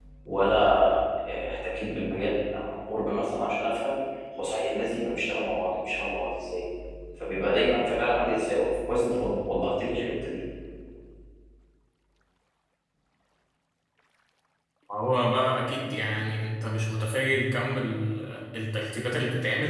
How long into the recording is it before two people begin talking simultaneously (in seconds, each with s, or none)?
none